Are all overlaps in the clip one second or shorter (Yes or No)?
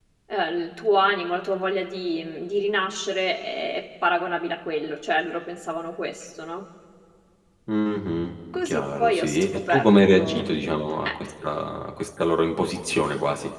No